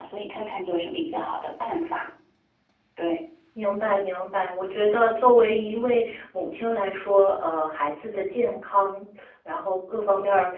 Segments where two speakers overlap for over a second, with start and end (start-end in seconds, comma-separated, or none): none